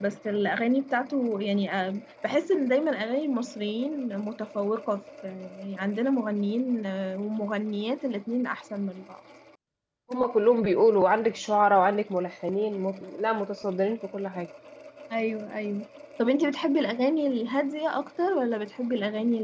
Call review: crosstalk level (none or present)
none